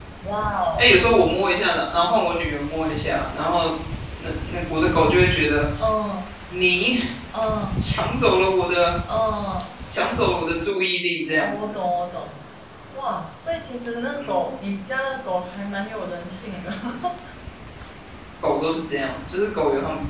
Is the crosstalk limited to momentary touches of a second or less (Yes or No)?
Yes